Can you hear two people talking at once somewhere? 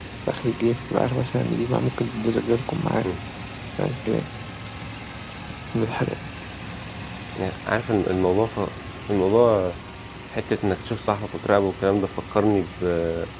No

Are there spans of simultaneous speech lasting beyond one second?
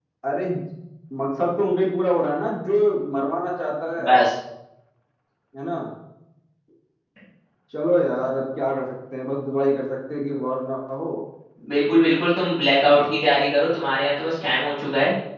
No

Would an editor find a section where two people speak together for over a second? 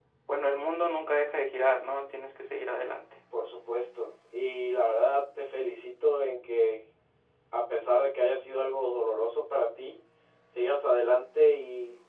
No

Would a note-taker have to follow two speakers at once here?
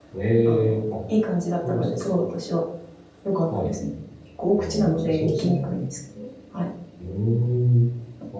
Yes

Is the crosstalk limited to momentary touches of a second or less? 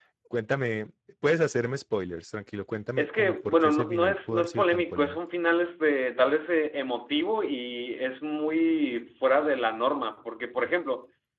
No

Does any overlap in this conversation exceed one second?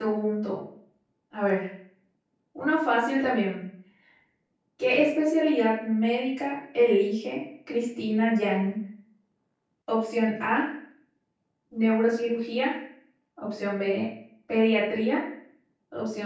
No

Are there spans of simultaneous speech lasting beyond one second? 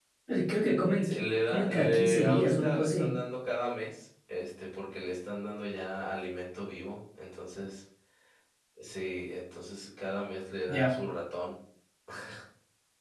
Yes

